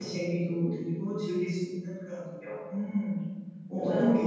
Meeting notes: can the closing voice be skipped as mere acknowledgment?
No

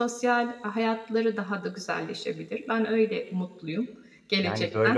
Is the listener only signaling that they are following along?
No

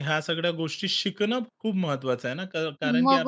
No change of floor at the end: No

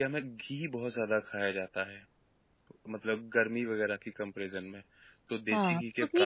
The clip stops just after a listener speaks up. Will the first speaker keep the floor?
No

